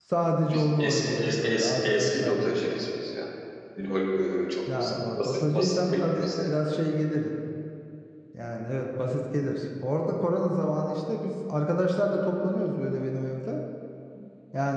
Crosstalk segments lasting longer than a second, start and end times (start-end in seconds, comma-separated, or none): 0.5-2.5, 4.8-6.5